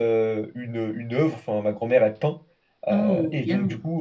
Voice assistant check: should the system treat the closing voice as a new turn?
No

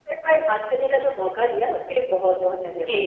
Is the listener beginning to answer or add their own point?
Yes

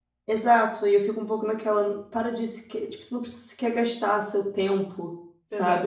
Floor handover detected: Yes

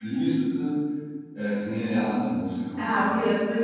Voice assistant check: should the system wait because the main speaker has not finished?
No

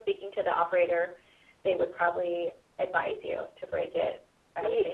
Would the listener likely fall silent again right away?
No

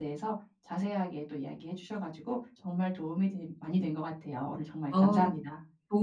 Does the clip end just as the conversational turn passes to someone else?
Yes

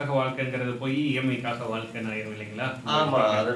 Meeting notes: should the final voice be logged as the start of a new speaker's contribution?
Yes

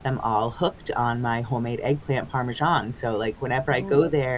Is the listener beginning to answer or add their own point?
No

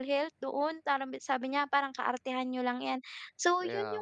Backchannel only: Yes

